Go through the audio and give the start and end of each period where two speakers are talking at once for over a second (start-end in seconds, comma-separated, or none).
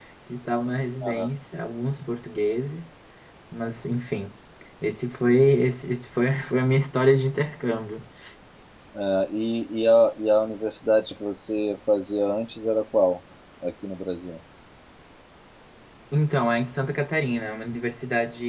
none